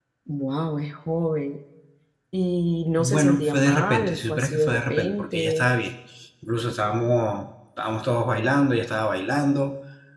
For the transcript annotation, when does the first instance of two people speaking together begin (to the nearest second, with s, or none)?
3 s